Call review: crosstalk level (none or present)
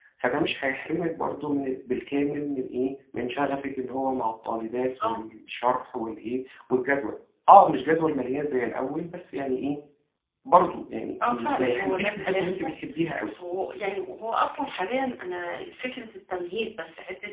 present